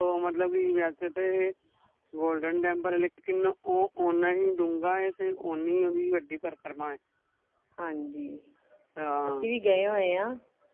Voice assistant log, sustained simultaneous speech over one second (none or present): none